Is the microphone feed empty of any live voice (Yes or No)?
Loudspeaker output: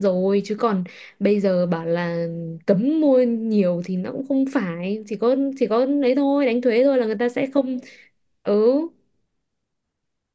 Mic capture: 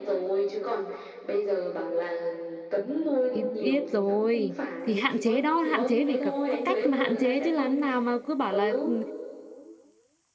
No